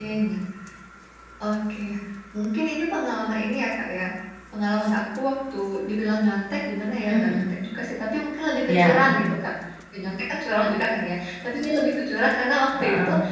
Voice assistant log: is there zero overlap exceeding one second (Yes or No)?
Yes